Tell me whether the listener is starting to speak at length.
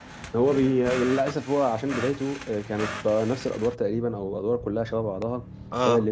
No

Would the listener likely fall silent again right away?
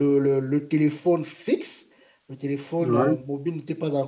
Yes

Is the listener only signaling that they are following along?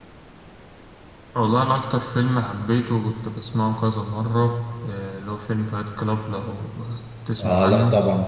No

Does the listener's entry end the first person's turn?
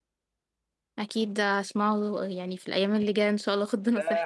Yes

